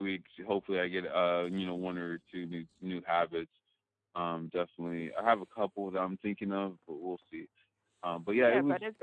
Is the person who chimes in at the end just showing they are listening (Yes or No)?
No